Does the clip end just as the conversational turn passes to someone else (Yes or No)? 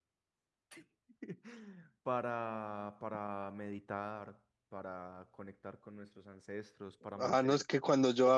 Yes